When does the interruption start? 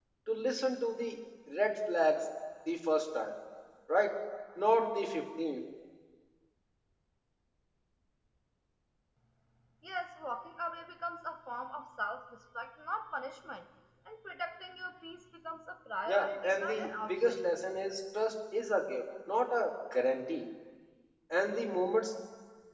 16.1 s

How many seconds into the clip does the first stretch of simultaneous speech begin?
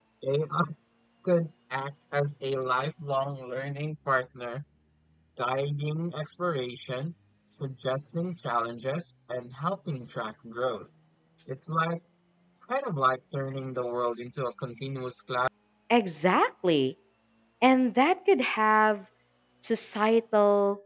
none

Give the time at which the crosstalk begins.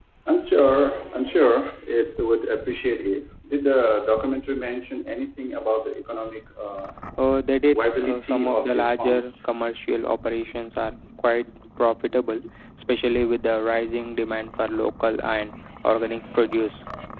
7.7 s

